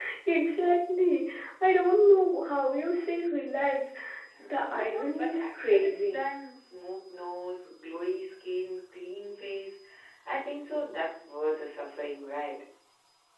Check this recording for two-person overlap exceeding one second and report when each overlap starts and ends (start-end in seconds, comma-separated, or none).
4.4-6.2